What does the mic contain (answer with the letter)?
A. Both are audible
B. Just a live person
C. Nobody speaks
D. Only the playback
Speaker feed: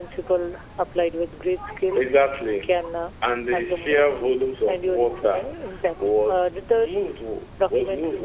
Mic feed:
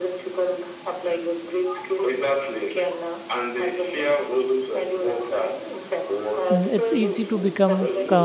A